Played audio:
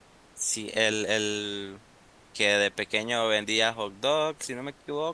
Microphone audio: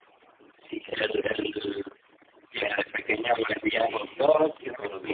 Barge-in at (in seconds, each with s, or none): 3.7 s